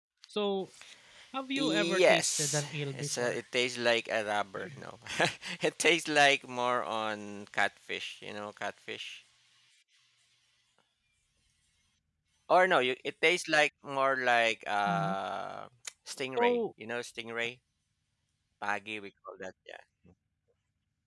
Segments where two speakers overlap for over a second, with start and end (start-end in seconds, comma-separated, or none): 1.6-3.4